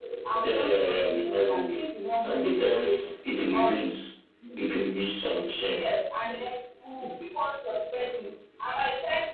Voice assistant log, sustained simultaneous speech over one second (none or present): present